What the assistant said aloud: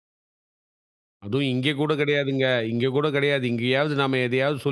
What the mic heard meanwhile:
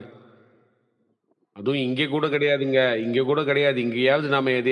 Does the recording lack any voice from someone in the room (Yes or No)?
Yes